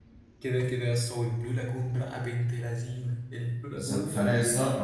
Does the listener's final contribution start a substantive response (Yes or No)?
Yes